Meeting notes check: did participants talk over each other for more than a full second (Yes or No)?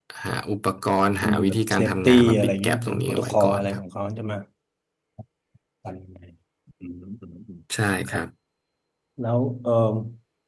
Yes